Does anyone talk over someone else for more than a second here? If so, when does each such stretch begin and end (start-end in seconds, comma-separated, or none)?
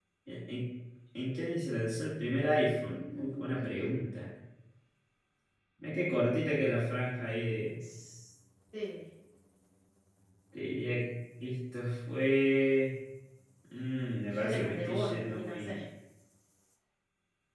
2.8-4.2, 14.3-15.8